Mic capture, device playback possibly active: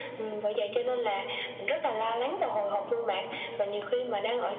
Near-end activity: none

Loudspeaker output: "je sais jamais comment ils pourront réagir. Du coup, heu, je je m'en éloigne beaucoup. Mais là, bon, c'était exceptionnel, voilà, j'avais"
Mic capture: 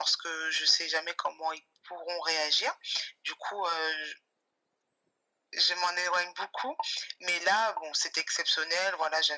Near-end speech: none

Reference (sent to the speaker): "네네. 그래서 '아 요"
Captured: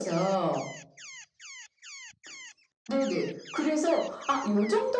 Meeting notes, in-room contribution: none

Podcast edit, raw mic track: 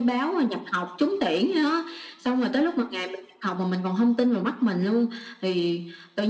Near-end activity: none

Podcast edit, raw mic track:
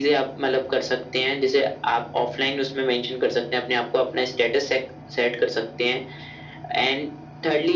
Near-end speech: none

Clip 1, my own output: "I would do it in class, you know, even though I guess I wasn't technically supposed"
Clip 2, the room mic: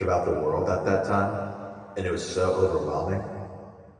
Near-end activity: present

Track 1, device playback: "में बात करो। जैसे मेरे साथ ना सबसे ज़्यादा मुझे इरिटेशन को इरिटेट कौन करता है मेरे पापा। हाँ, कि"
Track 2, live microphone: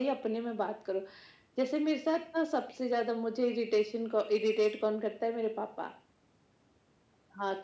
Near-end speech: none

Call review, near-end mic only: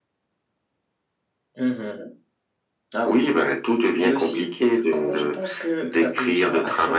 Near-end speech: none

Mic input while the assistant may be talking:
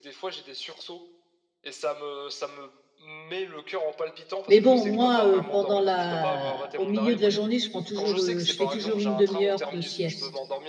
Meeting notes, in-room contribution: present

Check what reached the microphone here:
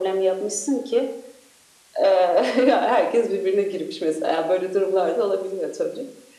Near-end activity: none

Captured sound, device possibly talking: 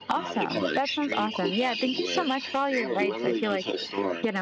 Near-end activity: present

